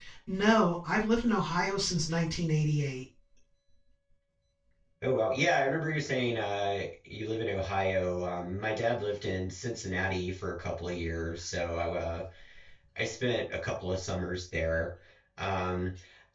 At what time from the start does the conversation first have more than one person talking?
none

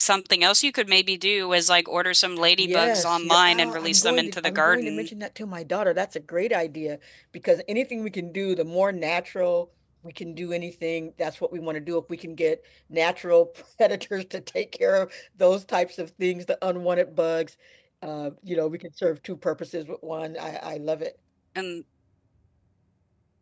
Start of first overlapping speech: 2 s

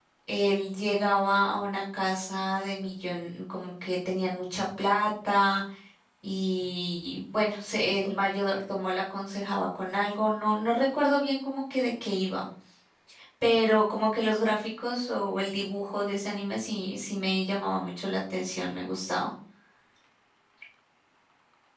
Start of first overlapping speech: none

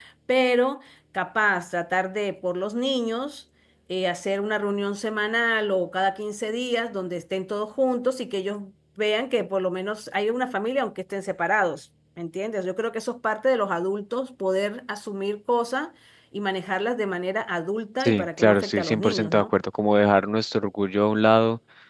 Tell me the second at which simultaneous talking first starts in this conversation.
18 s

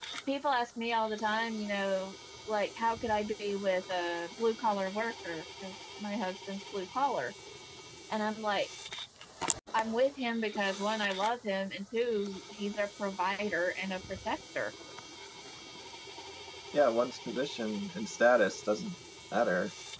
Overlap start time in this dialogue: none

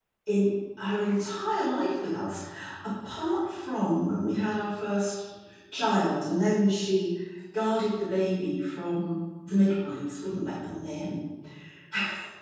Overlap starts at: none

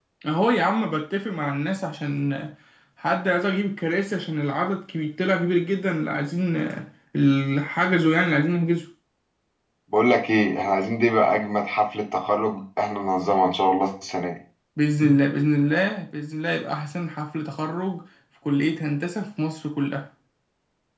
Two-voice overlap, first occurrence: none

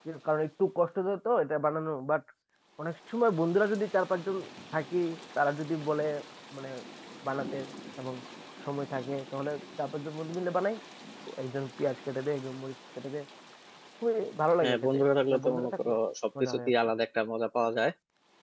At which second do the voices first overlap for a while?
15 s

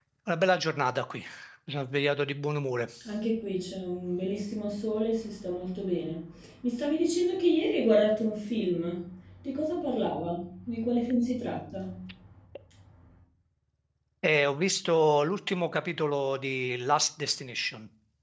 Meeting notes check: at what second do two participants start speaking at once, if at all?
none

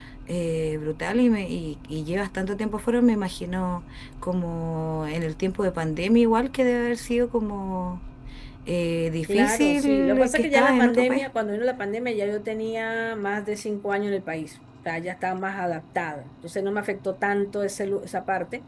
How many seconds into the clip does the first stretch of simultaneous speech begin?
9 s

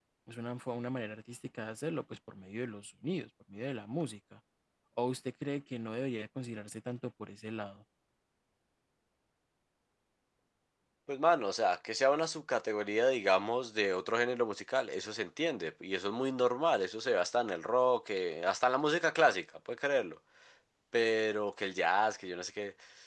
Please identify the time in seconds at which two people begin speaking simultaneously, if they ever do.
none

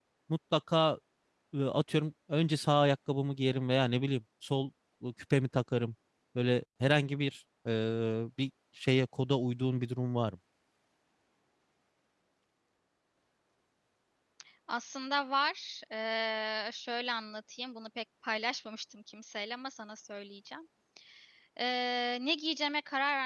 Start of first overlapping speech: none

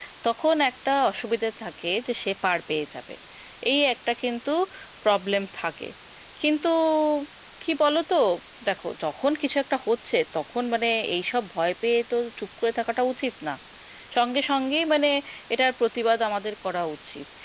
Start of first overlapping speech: none

